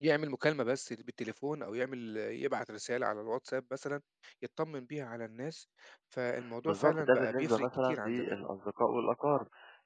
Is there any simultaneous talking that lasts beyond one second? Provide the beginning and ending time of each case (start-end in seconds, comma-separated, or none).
6.7-8.4